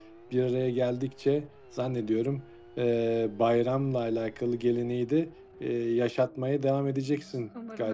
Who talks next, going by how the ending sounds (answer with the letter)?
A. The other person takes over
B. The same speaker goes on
A